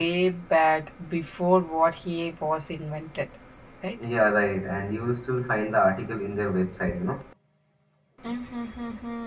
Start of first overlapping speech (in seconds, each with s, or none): none